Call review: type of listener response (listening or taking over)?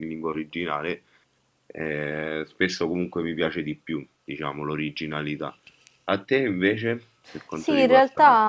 taking over